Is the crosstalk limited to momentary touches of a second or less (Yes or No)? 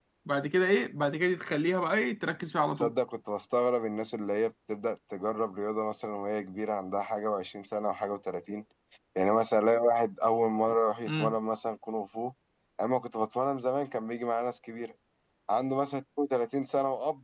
Yes